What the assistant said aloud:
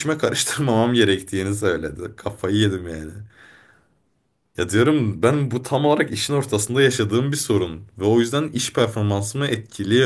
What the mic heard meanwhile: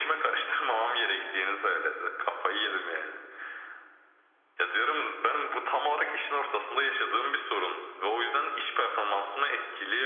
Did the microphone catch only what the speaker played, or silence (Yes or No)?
Yes